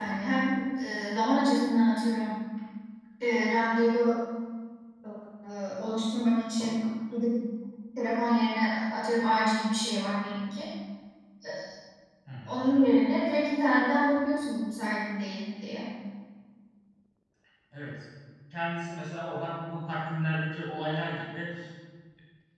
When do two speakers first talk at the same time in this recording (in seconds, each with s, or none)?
none